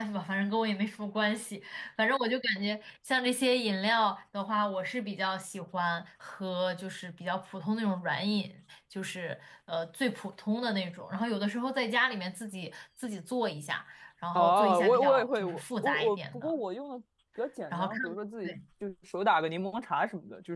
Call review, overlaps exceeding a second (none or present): present